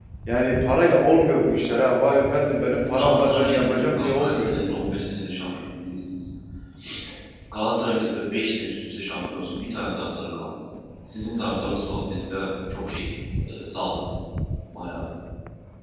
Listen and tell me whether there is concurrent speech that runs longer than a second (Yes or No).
Yes